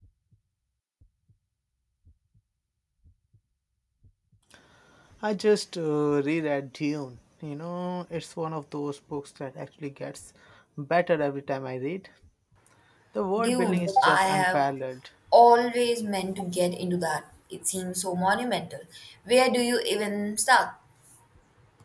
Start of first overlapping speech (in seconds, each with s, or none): 13.4 s